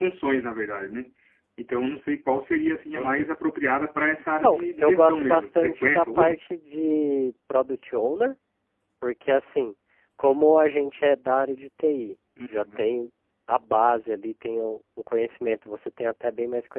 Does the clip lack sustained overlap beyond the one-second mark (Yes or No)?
No